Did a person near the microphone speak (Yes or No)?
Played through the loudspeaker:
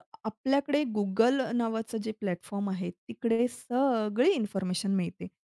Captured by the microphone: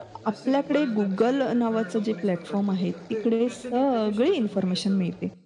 Yes